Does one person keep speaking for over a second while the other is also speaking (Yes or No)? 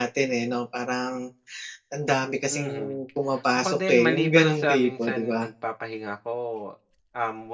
Yes